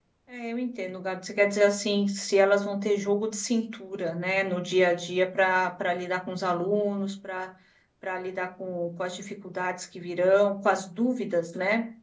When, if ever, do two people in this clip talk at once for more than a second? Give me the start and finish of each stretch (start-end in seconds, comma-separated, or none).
none